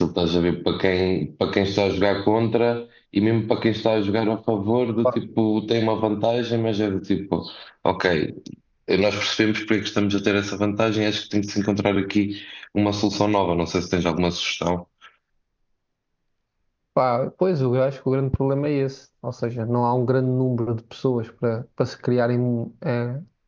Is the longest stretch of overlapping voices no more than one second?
Yes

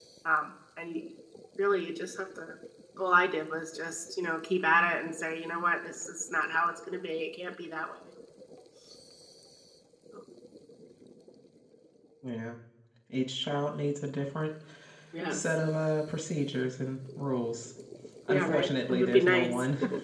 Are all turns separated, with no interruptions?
No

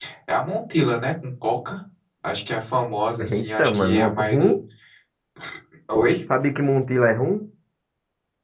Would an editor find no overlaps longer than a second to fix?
No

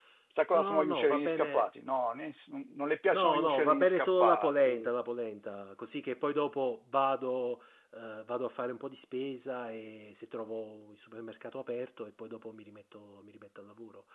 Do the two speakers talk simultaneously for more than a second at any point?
Yes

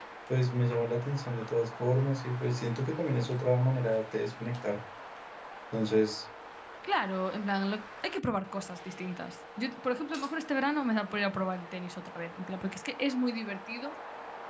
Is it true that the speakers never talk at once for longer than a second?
Yes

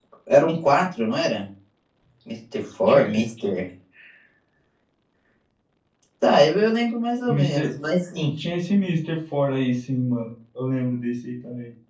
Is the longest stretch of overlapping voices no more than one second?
Yes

